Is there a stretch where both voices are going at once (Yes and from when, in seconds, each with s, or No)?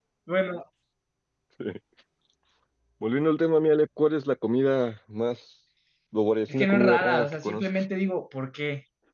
Yes, from 6.5 s